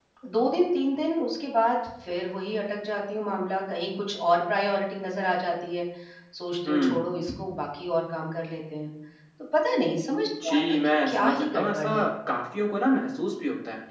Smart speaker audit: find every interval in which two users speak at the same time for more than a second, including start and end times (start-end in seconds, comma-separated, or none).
10.4-11.9